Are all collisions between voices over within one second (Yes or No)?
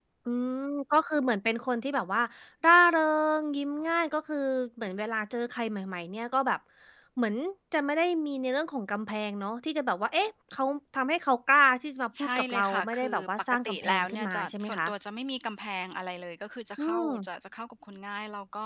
No